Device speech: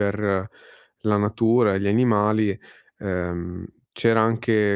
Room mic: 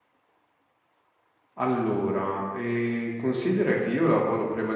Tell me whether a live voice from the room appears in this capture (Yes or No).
Yes